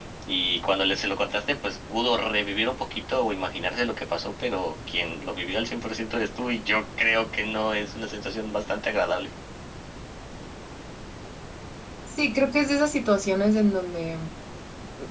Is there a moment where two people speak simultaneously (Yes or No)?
No